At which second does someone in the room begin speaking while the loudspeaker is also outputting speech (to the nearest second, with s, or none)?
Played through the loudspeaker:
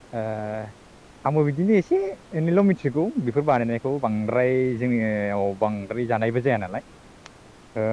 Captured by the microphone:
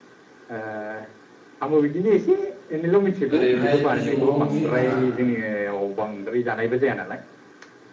3 s